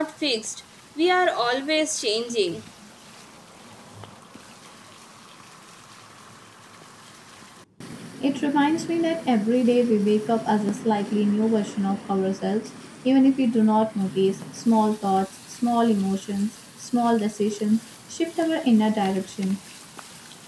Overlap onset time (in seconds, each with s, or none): none